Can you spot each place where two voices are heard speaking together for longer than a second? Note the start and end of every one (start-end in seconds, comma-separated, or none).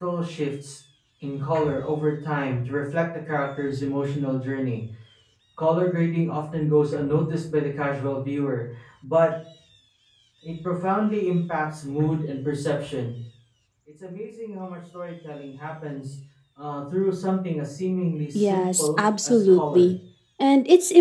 18.4-19.9